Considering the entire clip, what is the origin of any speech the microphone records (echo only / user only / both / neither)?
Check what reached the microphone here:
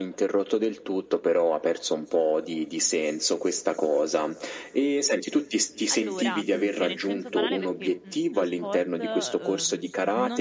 both